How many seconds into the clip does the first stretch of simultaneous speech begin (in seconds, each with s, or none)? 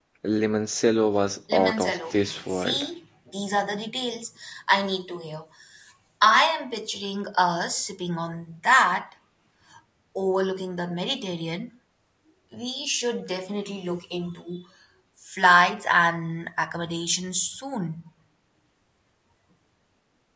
1.5 s